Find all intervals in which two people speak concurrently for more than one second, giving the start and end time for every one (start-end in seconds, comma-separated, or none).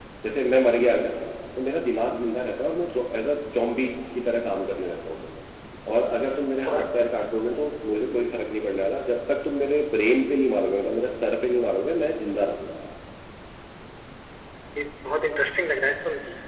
none